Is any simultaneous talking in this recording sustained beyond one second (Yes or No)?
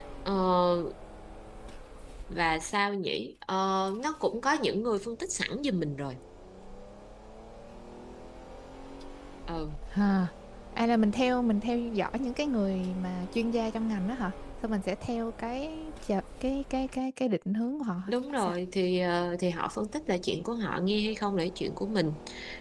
No